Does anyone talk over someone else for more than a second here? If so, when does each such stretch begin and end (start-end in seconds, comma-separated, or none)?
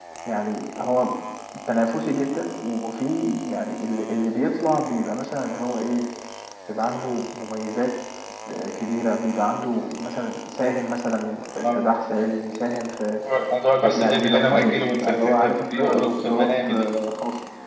13.8-16.9